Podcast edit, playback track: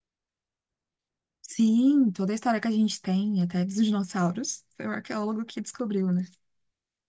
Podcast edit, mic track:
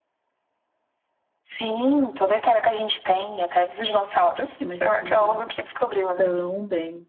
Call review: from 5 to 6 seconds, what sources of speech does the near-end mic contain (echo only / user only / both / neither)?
both